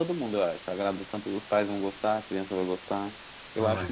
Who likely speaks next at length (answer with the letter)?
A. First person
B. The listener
A